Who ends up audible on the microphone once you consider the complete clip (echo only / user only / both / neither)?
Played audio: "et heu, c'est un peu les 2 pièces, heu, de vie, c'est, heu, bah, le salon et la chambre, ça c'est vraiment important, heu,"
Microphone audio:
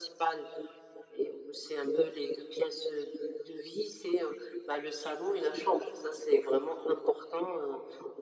echo only